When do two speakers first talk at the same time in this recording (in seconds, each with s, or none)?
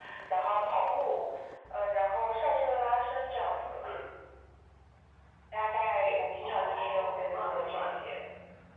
6.4 s